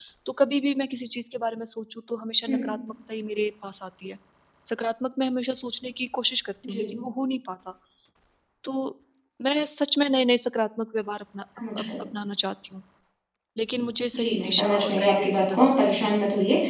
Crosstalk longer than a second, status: present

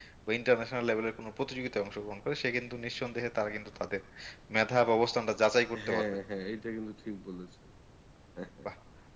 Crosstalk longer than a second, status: none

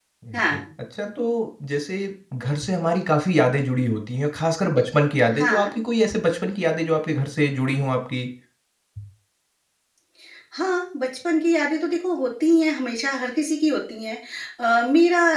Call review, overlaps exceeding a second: none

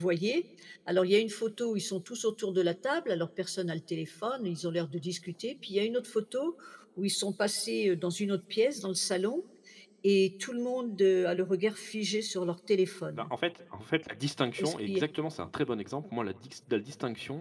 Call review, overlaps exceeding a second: none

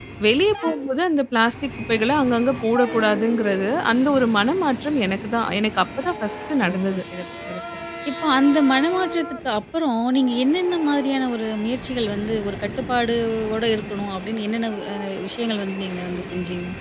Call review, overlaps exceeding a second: none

